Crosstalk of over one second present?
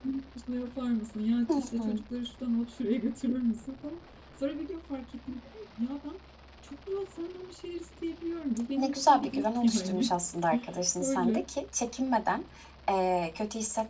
Yes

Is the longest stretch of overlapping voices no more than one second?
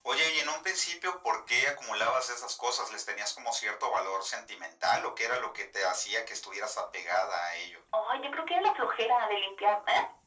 Yes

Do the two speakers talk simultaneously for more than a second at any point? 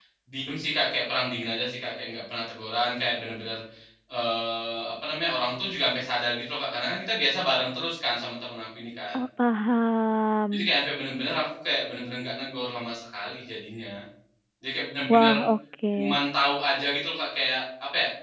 No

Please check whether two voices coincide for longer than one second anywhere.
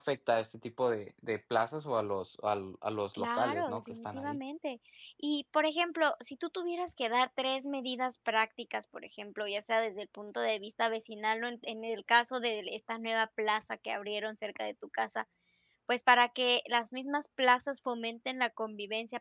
Yes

